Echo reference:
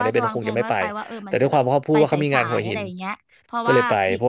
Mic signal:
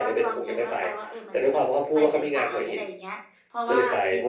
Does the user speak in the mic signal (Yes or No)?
No